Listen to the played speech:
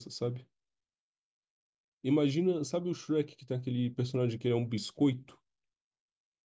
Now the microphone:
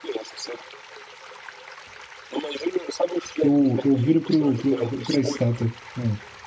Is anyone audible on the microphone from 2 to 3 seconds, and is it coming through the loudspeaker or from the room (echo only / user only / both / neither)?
echo only